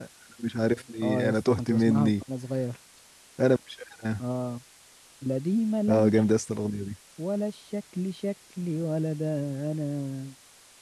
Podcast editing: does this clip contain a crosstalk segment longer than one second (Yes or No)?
Yes